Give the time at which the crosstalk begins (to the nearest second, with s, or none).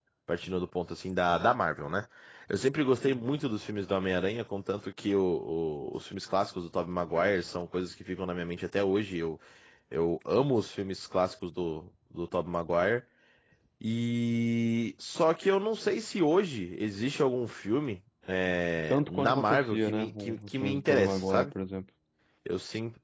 19 s